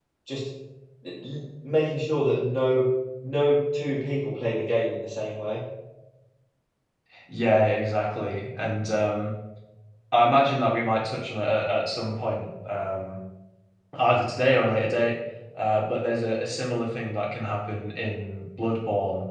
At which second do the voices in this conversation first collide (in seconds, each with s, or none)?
none